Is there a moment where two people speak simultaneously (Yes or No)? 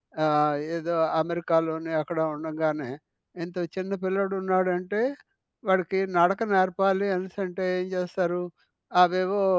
No